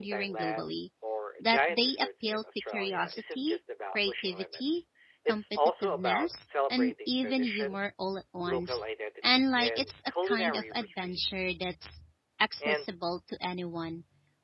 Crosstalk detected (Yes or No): Yes